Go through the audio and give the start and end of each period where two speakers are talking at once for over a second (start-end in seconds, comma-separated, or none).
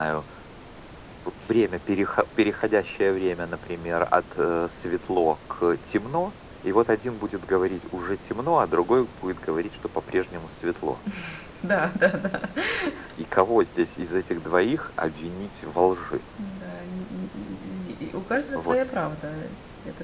none